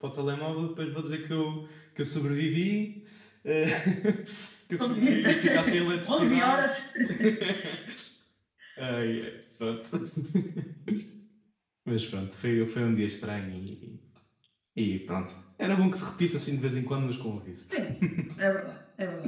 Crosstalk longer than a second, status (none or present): present